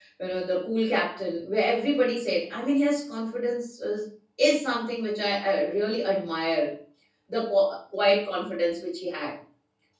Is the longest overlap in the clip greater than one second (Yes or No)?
No